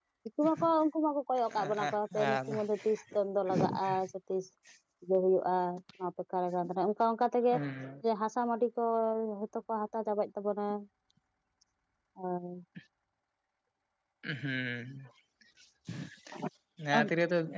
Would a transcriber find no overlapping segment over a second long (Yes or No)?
Yes